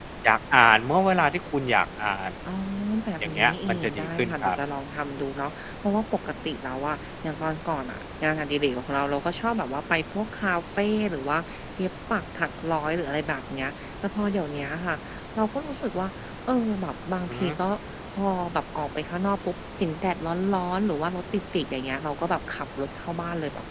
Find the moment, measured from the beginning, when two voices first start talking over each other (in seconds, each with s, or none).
3.2 s